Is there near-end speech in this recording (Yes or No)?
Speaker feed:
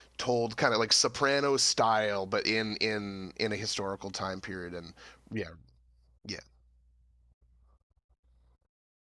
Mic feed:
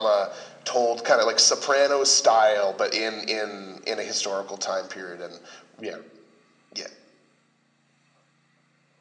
No